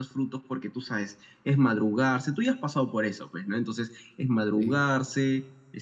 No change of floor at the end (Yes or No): Yes